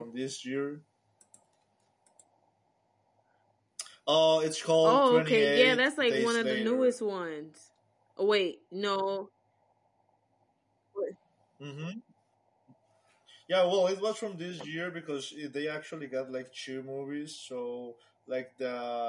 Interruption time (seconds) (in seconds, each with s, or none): 4.8 s